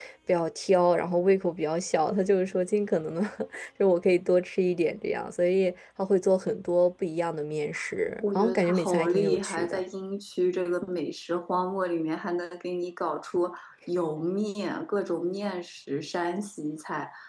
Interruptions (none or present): present